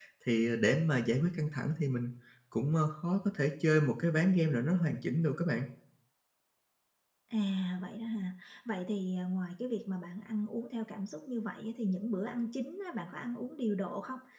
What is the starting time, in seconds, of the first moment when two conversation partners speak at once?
none

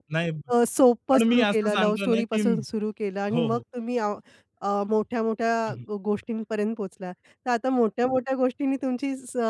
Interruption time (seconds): 1 s

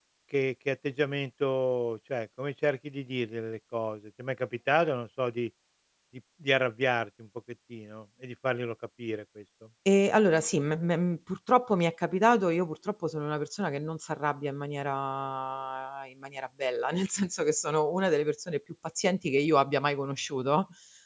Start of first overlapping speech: none

